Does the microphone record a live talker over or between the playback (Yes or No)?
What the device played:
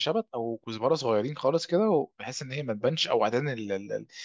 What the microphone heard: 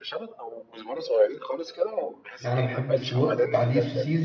Yes